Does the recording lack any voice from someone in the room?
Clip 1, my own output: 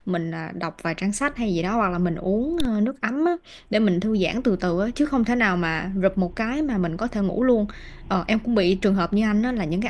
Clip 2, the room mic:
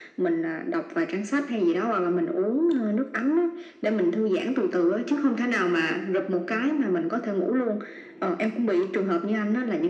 Yes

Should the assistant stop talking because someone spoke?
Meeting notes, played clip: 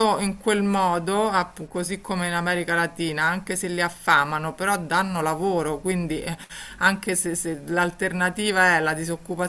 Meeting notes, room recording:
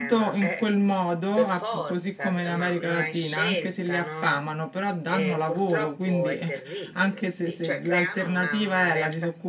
Yes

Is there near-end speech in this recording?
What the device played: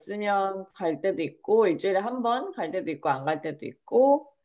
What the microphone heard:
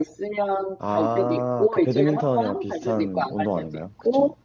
Yes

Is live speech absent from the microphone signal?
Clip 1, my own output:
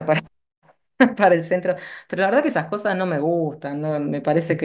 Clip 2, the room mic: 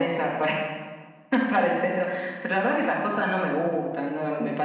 Yes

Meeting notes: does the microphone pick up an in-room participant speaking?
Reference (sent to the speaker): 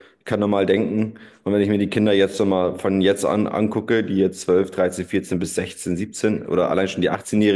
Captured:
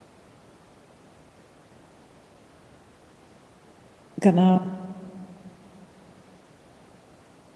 Yes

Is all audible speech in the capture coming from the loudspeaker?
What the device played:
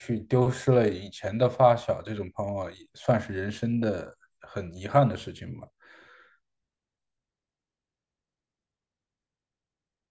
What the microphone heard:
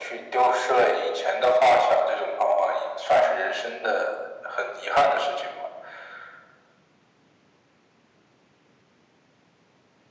Yes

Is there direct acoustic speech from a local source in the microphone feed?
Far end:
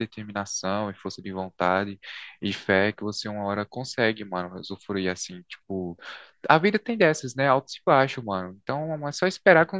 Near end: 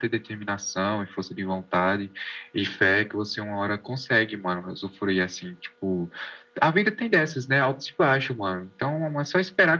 No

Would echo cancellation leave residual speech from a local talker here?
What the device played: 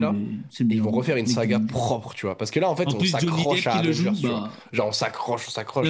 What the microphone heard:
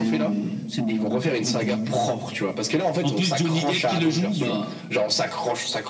No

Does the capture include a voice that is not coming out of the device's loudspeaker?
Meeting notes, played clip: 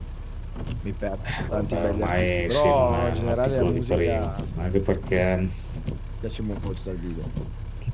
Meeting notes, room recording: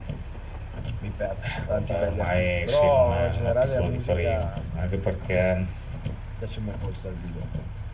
No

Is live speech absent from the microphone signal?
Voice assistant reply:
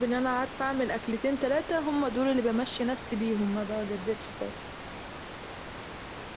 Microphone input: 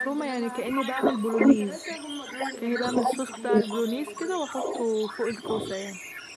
No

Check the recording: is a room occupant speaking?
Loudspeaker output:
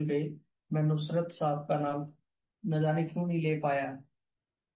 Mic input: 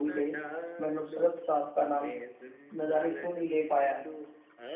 Yes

